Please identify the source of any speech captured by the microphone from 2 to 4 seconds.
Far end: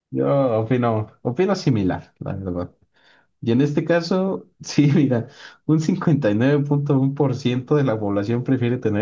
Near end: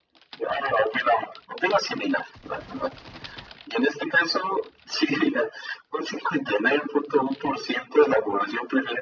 echo only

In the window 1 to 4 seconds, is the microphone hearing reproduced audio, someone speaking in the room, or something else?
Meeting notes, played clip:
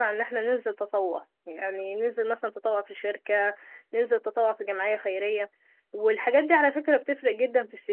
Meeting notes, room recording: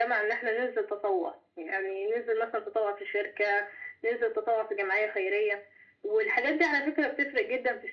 echo only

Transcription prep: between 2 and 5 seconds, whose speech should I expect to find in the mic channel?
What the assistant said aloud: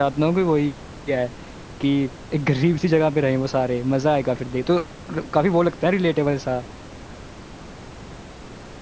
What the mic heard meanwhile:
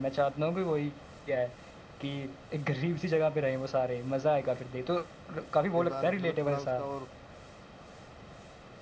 echo only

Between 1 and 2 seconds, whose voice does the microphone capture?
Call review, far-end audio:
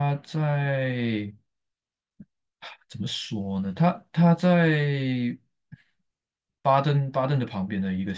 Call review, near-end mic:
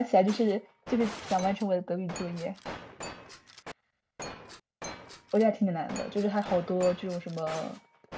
user only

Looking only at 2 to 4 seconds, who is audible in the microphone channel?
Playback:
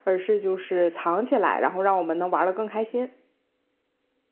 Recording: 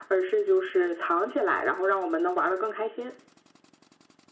echo only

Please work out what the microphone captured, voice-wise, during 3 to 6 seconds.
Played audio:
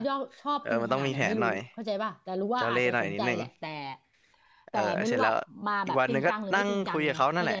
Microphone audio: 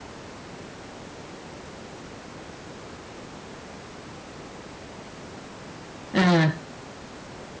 neither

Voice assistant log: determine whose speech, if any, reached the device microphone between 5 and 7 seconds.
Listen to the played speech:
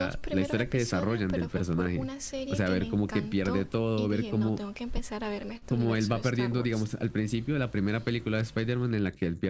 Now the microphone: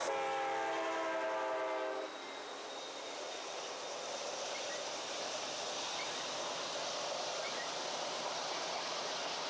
neither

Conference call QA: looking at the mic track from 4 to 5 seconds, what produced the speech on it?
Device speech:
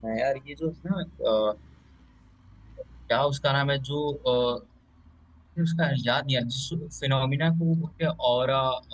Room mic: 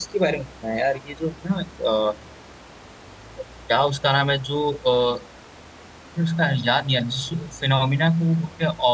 echo only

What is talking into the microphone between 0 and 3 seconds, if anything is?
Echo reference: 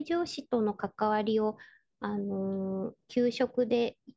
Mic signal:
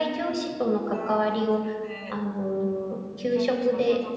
both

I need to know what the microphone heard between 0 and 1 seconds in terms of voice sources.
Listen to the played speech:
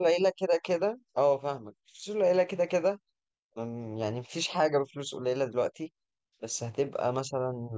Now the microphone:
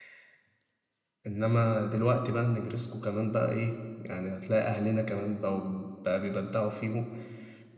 neither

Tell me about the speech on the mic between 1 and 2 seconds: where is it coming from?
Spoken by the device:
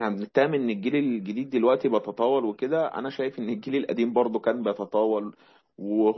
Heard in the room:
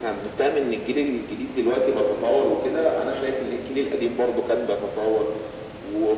echo only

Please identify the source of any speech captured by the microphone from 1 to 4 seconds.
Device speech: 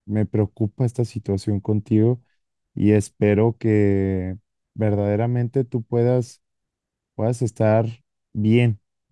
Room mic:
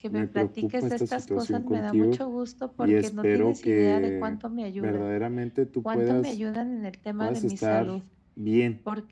both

